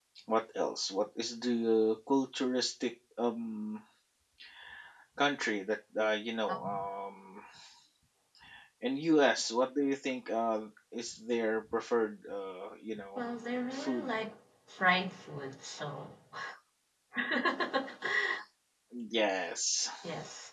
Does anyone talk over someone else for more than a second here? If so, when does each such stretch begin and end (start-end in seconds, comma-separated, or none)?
none